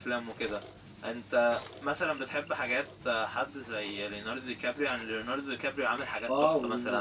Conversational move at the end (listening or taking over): taking over